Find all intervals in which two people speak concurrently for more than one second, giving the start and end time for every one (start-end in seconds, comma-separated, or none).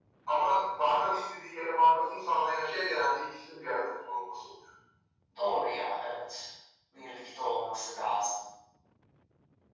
none